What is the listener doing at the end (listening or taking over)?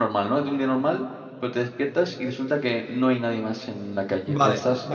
taking over